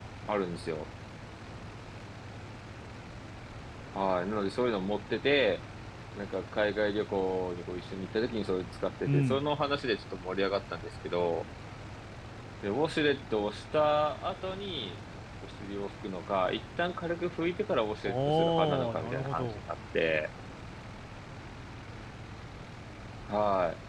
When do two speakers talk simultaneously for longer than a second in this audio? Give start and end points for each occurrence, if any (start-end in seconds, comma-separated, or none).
18.0-19.5